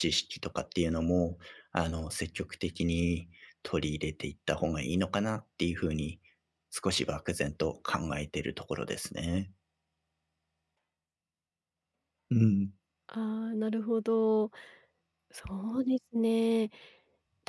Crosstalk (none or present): none